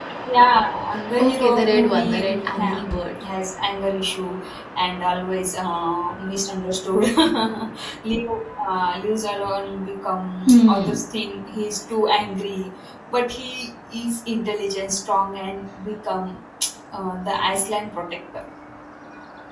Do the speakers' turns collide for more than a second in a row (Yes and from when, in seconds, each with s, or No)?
Yes, from 1.2 s